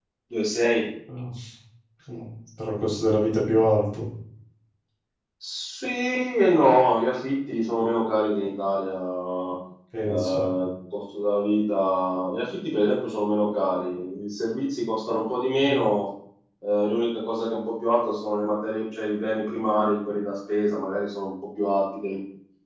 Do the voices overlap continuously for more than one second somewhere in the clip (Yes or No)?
No